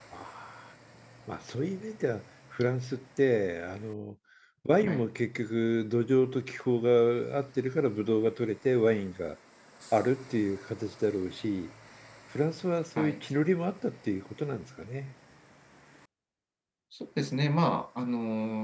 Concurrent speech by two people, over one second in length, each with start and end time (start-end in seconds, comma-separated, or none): none